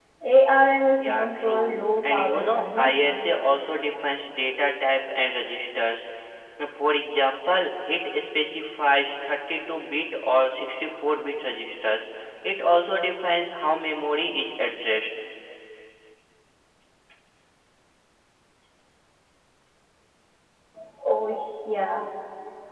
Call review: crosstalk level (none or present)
present